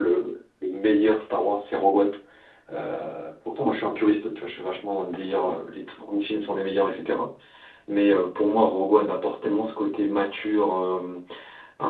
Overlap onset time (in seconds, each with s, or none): none